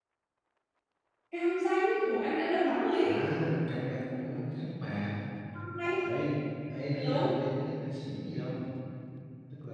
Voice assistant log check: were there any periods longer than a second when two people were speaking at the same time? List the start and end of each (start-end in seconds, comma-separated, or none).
none